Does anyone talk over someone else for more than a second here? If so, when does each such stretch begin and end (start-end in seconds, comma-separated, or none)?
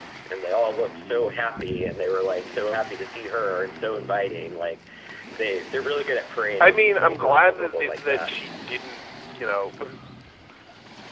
6.6-8.3